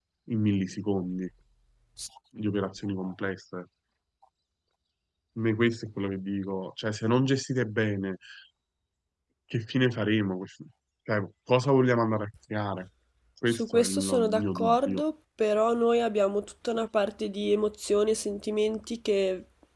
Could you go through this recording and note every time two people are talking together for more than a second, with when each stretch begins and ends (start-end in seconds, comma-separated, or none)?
13.5-15.0